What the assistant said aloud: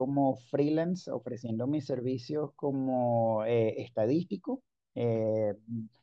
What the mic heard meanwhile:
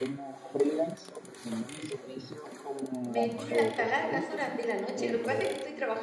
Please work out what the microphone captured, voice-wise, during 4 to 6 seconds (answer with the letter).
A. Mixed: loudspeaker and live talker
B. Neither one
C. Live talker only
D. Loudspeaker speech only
A